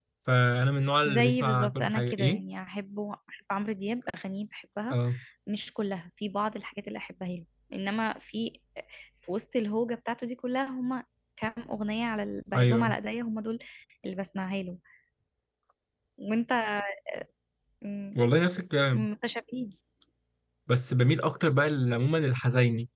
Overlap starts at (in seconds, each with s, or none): 1.0 s